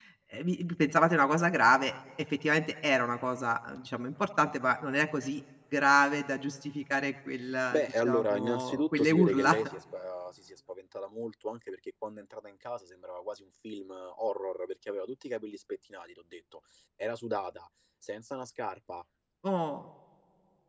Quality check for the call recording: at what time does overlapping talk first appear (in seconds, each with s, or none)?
7.7 s